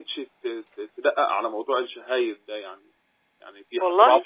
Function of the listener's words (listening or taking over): listening